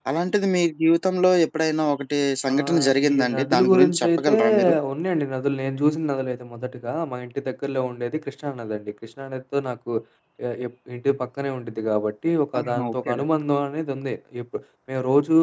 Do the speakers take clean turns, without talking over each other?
No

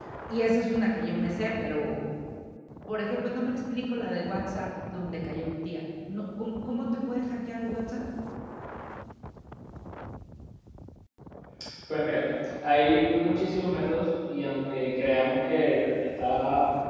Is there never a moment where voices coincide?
Yes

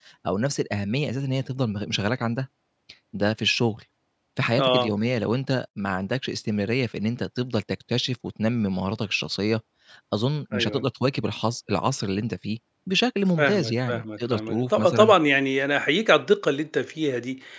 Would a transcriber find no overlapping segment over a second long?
No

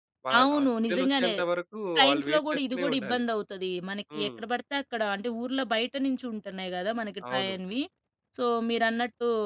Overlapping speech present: Yes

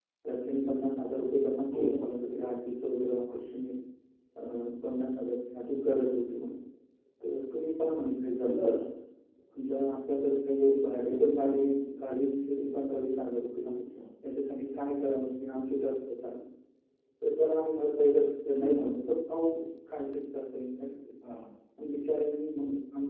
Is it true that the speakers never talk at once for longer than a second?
Yes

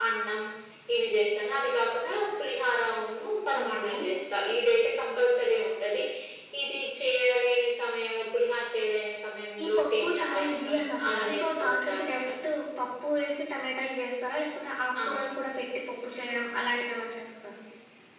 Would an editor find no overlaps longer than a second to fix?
No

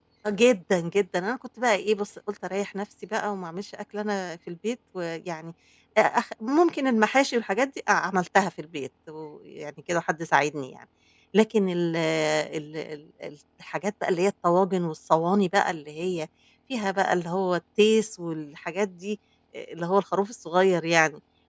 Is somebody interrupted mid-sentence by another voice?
No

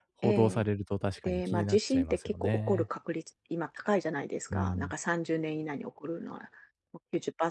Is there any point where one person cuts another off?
Yes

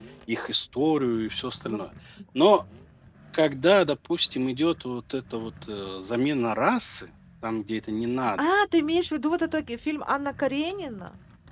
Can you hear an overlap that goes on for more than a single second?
No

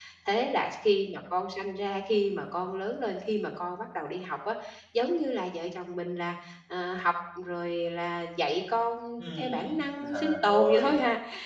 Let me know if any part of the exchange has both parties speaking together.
Yes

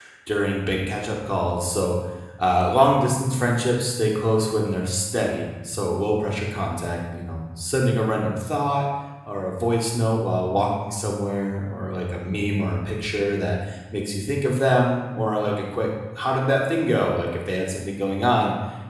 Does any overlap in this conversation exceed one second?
No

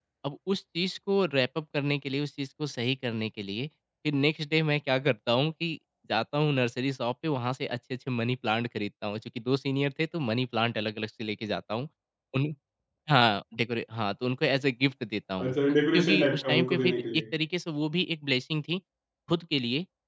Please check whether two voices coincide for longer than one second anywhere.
Yes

